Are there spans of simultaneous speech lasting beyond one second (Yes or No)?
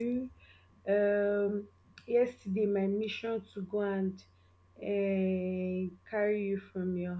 No